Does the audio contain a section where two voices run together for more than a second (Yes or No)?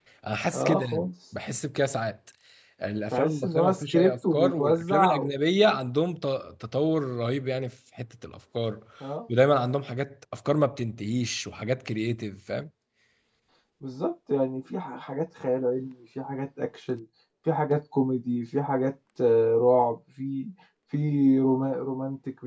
Yes